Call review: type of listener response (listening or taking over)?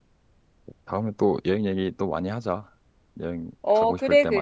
taking over